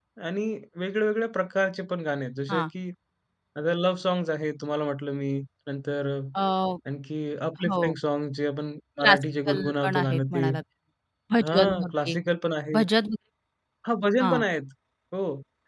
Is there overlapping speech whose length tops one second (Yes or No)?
Yes